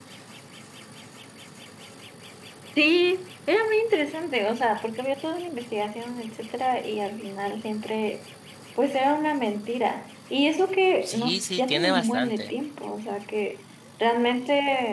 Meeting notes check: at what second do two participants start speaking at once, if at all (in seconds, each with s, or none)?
11.0 s